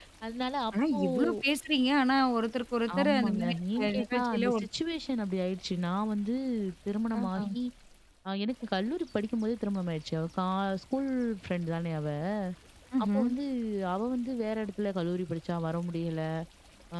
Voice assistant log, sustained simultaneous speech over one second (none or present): present